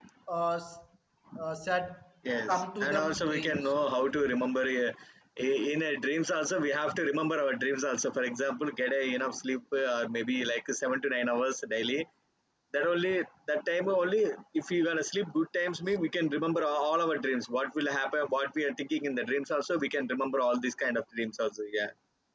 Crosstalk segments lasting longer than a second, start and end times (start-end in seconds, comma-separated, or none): 2.5-3.7